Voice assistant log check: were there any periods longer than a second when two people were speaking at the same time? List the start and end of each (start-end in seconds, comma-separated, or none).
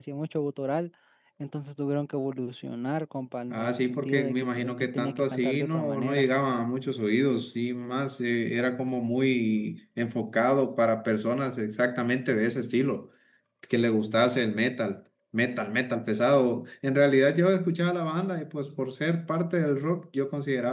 3.5-6.3